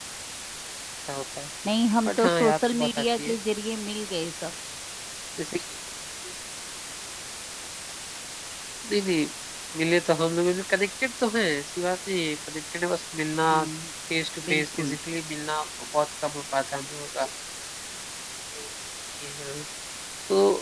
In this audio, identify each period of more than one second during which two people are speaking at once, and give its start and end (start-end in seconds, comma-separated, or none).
2.1-3.4